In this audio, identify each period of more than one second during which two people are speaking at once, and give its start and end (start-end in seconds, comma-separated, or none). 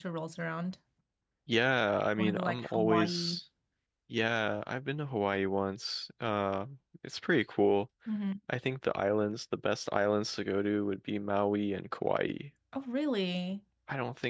2.1-3.4